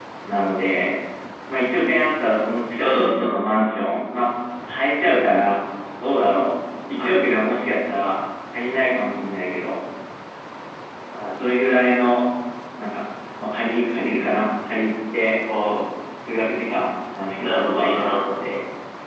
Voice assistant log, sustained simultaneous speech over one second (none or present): present